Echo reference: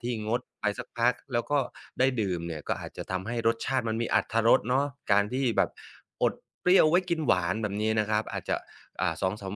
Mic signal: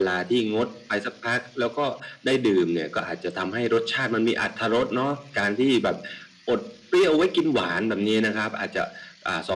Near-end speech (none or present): none